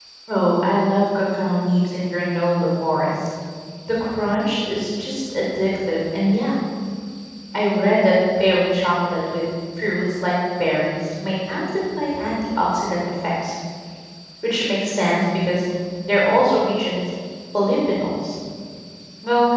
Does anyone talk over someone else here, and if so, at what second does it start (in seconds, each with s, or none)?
none